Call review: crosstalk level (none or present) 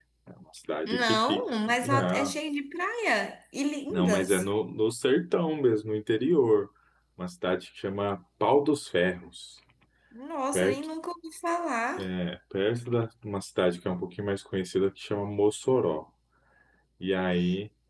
present